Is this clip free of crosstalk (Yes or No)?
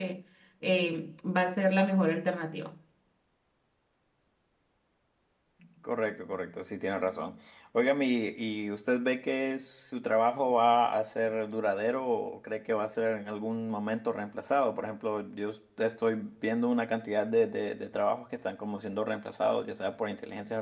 Yes